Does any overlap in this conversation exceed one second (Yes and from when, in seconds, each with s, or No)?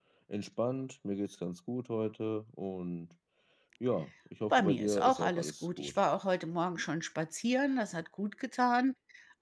Yes, from 4.5 s